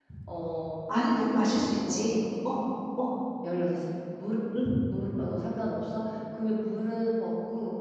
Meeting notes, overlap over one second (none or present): present